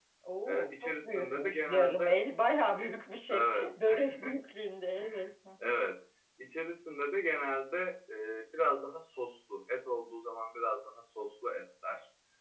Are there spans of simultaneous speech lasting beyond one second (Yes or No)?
Yes